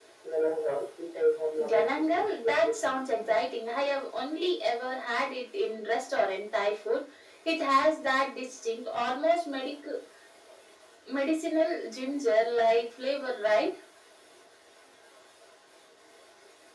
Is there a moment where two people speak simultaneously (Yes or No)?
Yes